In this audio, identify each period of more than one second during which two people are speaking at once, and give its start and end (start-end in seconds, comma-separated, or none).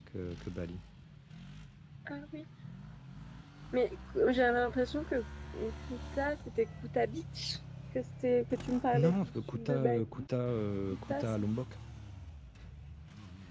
8.9-10.2